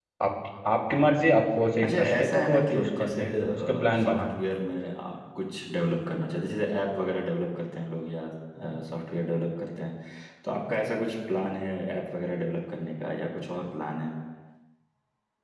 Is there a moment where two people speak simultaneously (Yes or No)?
Yes